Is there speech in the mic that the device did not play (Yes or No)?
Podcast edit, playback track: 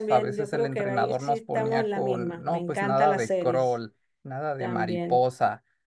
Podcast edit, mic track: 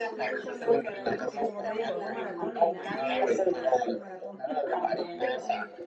Yes